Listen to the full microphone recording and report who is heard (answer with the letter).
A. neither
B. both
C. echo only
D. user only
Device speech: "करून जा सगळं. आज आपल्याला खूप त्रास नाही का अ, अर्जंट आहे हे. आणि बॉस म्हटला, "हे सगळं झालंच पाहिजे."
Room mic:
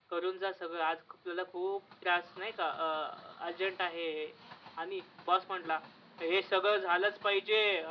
C